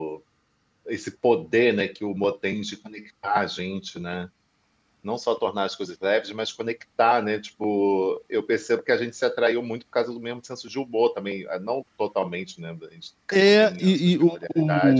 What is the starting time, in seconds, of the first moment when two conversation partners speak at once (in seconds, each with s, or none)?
13.3 s